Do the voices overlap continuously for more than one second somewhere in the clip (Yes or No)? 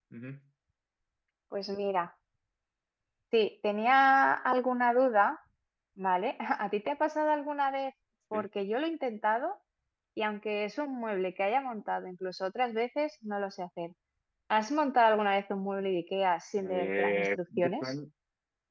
Yes